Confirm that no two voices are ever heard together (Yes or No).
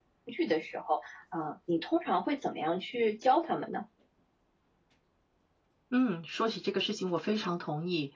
Yes